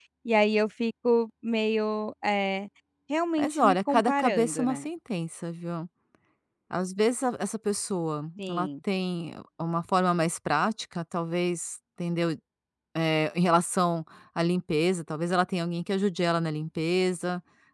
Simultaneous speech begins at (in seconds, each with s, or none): 3.4 s